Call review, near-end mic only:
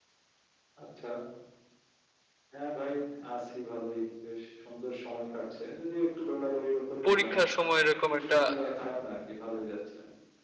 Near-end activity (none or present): present